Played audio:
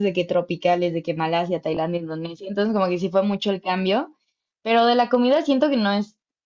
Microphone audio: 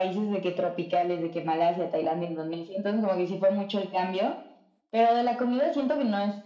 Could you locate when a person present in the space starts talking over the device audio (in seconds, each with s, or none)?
none